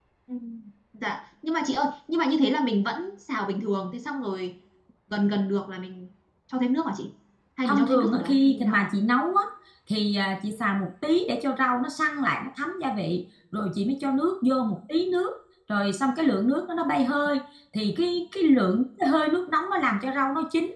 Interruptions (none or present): present